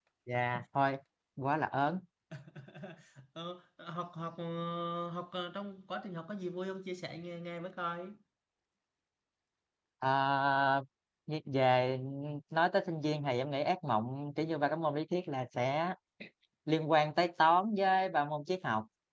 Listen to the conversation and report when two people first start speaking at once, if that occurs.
none

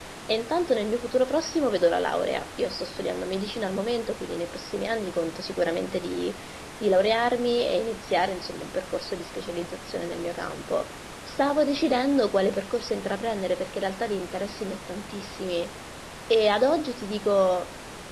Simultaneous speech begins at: none

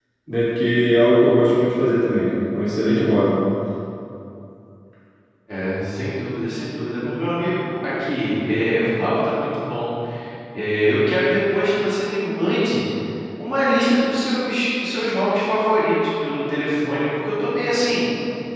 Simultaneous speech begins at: none

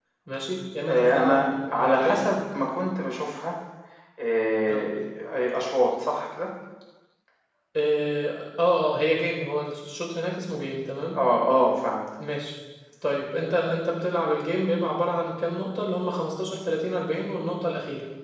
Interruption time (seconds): 0.8 s

